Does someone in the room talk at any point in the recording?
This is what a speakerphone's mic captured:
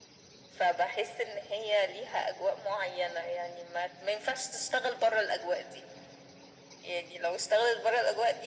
No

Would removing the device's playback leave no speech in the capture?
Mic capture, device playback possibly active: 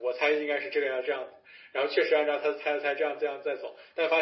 Yes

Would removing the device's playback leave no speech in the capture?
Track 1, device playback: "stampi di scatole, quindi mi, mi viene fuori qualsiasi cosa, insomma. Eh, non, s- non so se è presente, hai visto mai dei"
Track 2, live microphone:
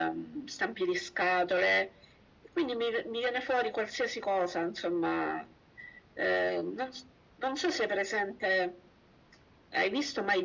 Yes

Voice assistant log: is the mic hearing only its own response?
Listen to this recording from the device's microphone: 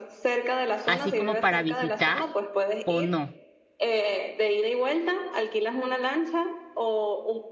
No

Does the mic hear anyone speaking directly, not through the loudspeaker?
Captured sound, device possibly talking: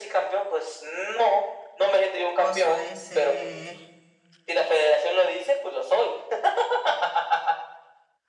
Yes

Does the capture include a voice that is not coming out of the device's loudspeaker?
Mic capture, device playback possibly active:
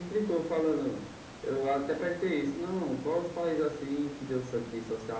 No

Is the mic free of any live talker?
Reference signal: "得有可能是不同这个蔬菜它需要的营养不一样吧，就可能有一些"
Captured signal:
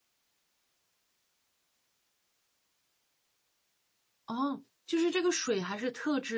No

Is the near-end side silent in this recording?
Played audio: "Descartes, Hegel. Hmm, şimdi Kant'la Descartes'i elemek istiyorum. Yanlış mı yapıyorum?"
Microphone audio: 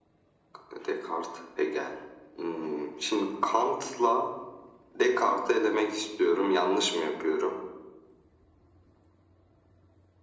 Yes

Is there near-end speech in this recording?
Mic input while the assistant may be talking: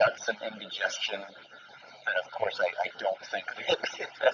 No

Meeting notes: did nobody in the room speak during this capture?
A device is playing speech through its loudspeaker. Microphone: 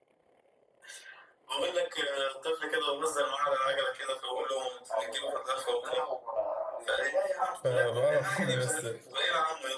No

